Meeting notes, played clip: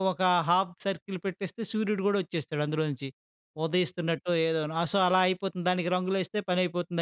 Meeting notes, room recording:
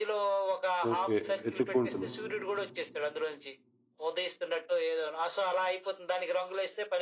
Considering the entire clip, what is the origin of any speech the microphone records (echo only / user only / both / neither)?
both